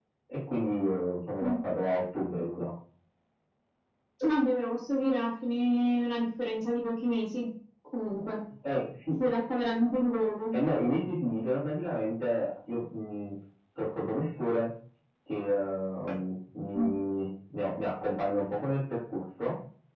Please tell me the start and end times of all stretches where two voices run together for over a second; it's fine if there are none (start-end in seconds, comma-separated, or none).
none